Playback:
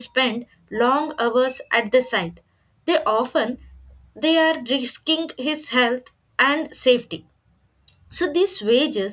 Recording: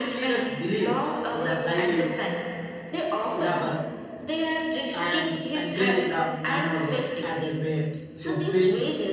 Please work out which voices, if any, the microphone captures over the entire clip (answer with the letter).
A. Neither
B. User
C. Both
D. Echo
C